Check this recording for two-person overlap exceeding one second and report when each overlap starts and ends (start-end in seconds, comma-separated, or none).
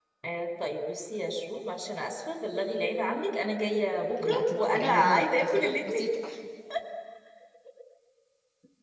4.2-6.0